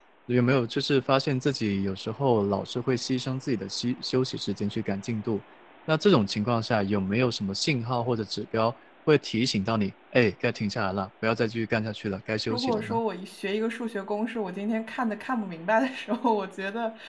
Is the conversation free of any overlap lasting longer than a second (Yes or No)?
Yes